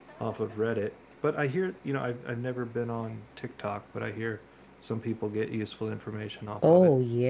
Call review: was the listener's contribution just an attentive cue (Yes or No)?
No